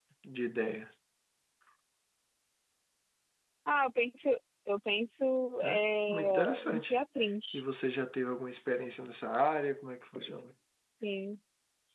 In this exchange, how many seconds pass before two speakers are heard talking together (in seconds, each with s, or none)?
5.6 s